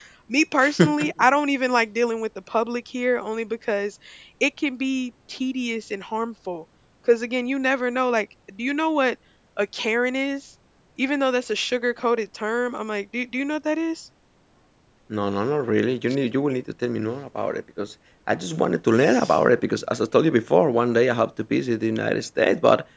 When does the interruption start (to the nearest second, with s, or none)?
none